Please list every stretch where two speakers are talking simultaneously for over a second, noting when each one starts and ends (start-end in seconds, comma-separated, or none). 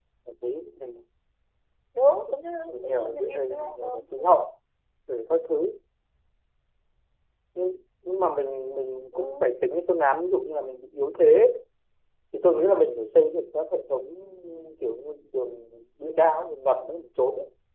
2.7-4.4